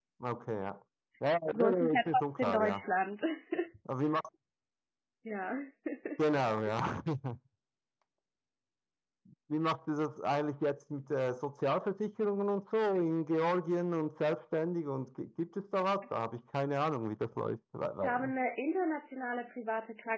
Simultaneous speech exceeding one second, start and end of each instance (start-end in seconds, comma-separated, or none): 1.5-2.8